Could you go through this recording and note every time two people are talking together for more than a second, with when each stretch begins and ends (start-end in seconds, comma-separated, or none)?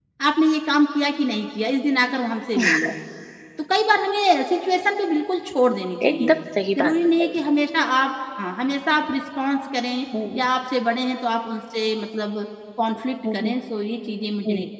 none